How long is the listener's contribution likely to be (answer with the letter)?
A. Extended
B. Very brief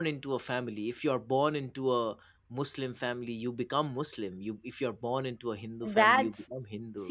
A